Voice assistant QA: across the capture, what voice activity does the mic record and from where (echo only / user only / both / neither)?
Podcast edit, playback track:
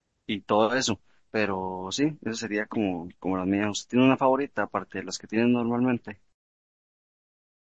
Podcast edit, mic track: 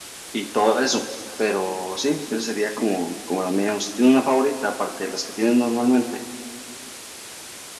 echo only